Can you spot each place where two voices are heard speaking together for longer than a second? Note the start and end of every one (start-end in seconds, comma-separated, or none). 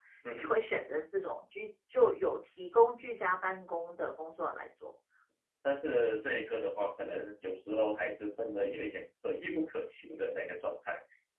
none